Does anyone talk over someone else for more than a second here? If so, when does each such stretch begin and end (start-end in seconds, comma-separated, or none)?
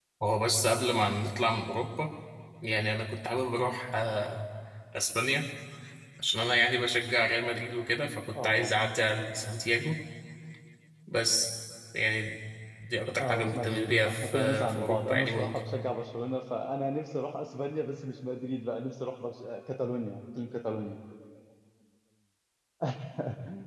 13.2-15.6